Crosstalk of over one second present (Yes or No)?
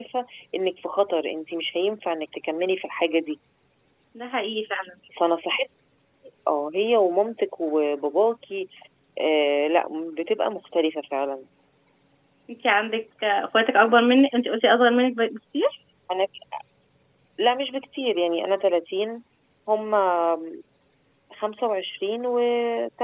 No